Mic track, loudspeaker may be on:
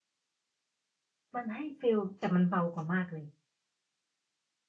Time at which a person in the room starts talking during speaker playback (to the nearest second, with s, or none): 1 s